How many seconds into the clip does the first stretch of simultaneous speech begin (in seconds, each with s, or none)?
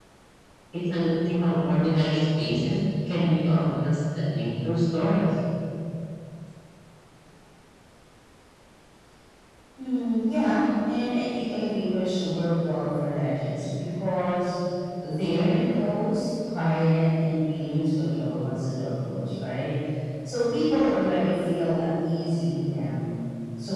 none